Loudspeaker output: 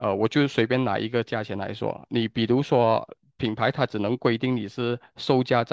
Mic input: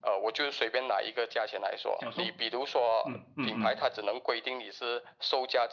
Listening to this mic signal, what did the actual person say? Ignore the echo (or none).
小售，嗯嗯嗯。